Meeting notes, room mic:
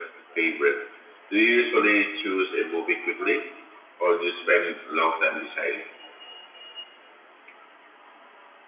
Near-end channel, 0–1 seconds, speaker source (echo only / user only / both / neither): echo only